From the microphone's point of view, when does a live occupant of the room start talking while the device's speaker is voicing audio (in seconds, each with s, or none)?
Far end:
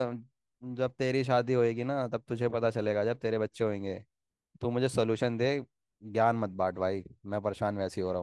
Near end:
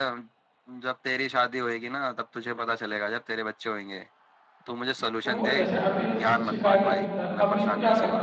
5.2 s